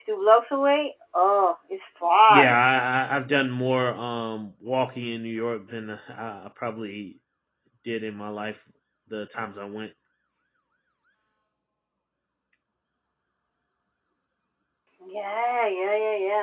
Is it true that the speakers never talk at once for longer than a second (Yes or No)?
Yes